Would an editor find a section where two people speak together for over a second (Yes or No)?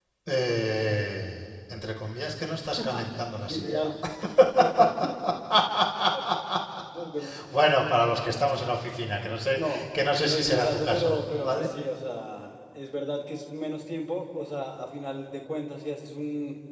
Yes